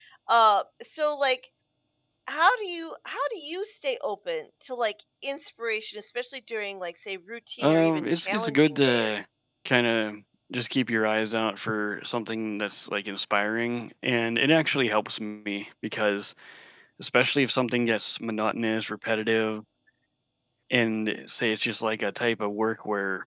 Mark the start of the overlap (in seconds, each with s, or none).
7.6 s